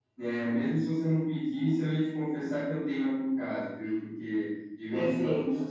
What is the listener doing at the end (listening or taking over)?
listening